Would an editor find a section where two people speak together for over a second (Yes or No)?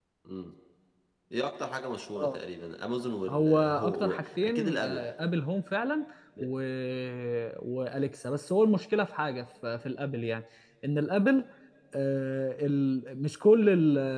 Yes